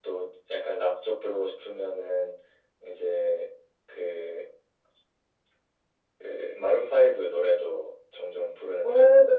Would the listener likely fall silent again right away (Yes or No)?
No